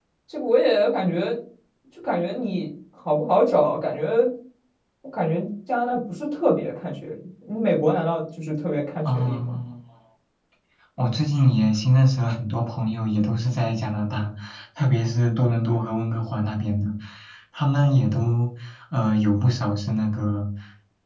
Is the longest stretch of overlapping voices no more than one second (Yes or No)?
Yes